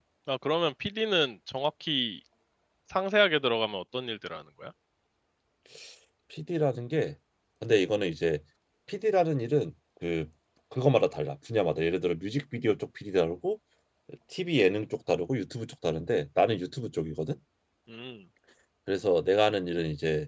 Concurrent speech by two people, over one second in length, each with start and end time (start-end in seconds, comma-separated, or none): none